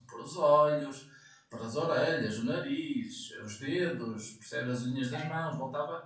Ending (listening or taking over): listening